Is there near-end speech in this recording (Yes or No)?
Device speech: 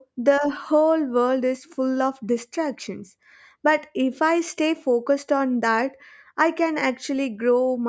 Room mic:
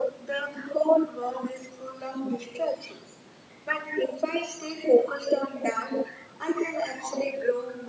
No